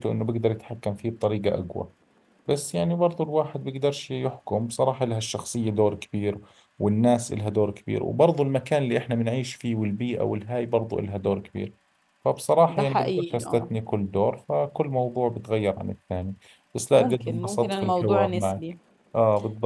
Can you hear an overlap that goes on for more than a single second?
Yes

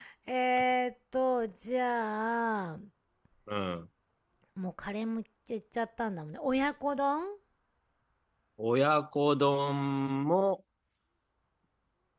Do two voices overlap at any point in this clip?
No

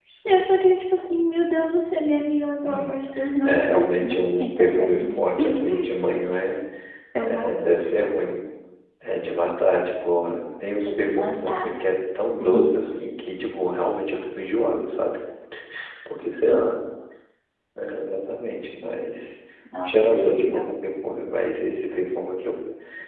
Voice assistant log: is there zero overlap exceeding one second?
No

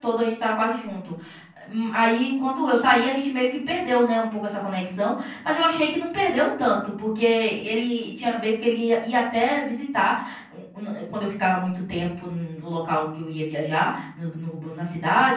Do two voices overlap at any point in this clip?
No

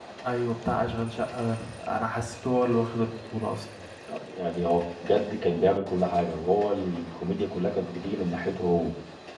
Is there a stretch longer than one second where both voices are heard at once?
No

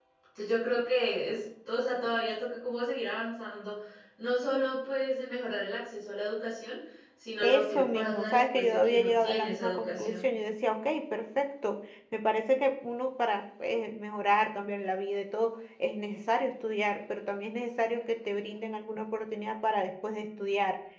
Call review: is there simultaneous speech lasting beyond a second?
Yes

